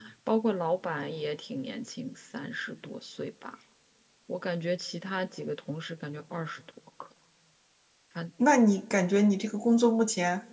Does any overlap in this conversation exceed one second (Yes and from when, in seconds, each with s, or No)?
No